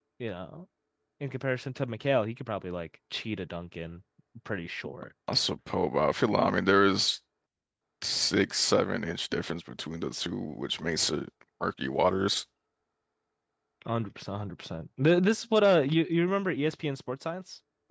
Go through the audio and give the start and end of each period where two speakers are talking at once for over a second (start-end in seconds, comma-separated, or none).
none